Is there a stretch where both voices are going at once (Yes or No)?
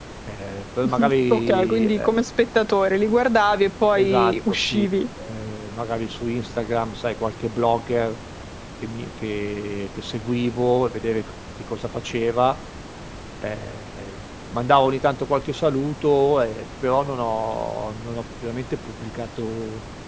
Yes